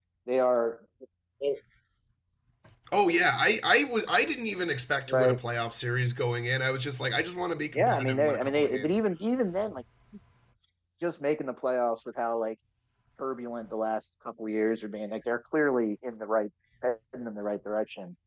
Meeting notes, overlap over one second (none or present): present